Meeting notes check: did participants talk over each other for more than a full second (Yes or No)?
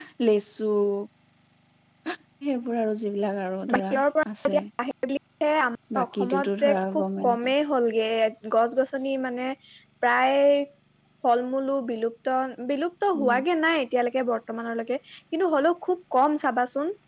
Yes